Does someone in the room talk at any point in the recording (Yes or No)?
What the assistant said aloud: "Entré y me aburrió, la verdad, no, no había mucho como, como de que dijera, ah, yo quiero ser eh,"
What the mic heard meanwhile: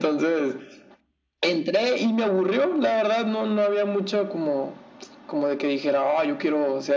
No